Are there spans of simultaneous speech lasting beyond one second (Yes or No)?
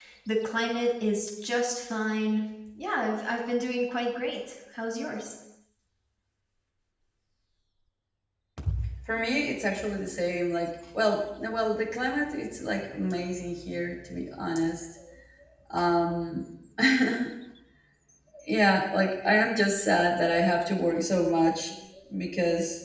No